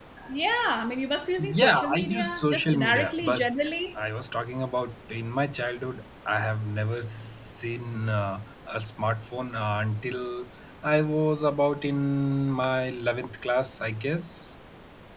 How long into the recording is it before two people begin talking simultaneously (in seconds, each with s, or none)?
1.4 s